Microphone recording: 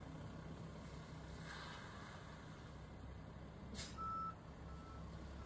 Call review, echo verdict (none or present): none